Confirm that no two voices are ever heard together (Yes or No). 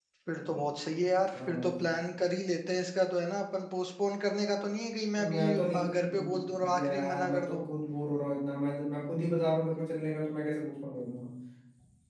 No